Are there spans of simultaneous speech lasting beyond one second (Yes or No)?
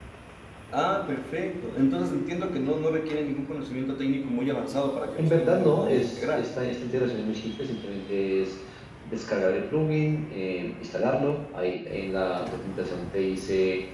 Yes